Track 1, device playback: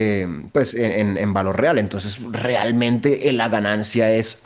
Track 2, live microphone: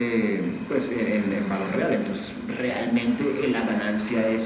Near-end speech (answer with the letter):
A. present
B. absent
B